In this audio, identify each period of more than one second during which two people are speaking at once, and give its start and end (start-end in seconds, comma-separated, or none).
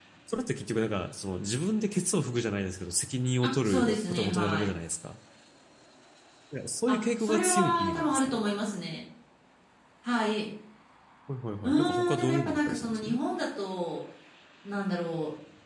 3.4-4.7, 6.9-8.4, 11.6-13.2